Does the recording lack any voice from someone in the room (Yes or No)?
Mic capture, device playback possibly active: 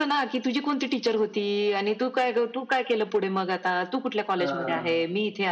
No